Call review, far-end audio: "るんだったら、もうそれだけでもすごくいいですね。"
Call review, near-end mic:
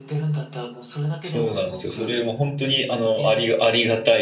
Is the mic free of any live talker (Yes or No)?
No